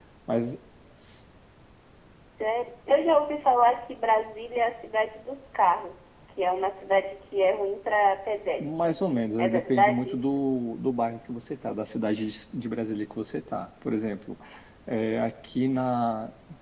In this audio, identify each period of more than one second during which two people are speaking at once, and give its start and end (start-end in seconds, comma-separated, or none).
8.6-10.4